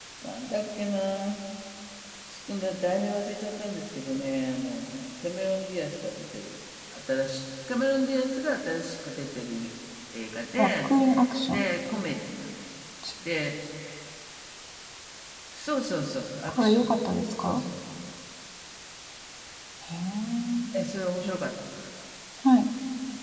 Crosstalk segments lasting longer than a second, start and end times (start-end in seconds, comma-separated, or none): none